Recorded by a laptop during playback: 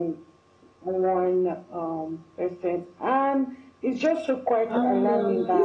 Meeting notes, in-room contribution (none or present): present